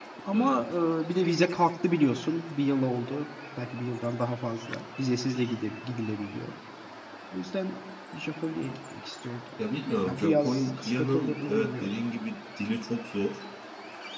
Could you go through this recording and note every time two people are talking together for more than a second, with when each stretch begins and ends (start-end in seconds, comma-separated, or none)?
10.0-11.9